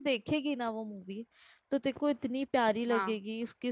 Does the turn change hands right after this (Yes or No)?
No